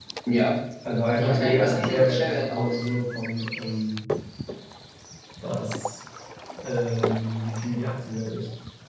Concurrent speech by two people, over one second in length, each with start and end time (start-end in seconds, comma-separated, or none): 1.1-2.8